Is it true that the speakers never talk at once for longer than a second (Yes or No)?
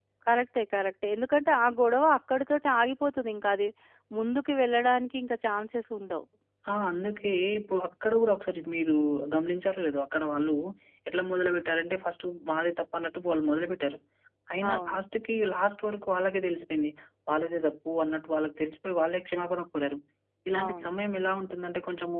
Yes